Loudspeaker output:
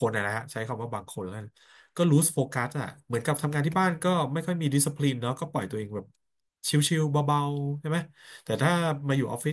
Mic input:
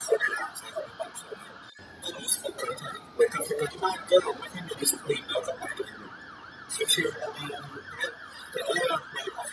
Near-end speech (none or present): none